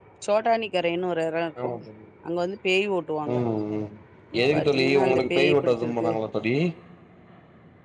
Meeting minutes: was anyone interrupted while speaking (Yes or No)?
Yes